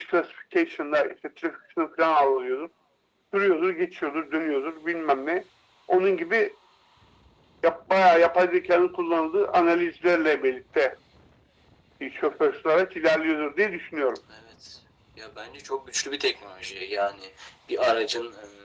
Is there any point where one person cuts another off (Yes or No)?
No